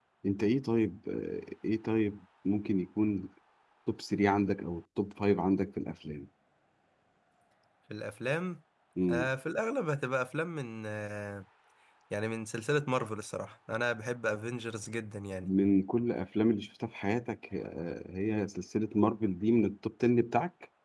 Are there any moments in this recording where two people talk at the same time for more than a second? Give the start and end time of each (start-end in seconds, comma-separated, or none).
none